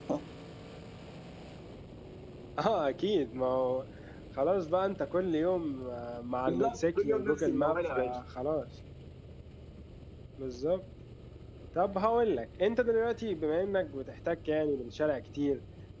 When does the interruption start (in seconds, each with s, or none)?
6.5 s